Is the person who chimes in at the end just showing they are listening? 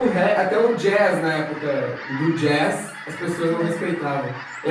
Yes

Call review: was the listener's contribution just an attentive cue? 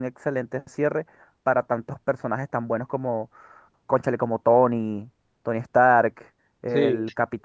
Yes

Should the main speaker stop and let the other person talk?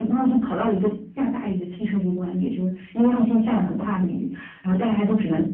No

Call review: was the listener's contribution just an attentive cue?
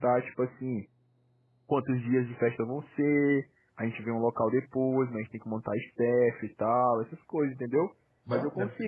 Yes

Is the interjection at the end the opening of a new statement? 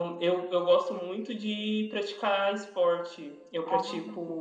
No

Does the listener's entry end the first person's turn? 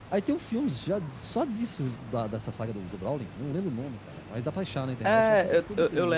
Yes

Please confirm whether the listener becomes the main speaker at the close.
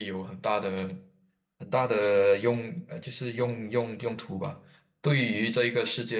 No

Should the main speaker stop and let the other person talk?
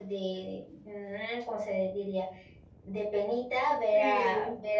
No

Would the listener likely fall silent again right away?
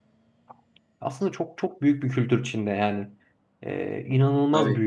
Yes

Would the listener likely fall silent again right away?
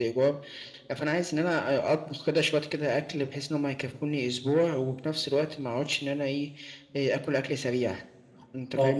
No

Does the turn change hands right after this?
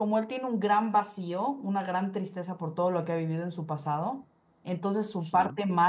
No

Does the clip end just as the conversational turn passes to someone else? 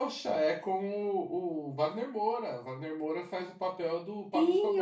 Yes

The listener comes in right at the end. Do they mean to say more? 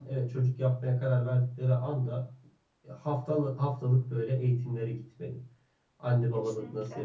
No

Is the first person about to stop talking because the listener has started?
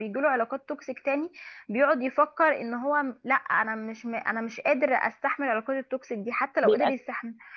No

